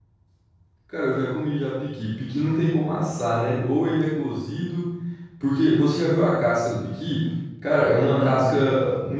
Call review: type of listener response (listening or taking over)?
listening